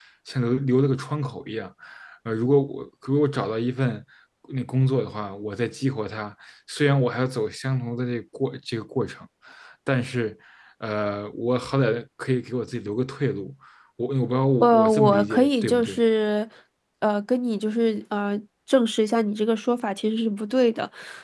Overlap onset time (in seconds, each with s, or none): 14.6 s